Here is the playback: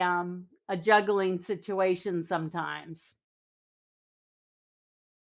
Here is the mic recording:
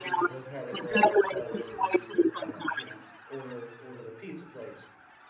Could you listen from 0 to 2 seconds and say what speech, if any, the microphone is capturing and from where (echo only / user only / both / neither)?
both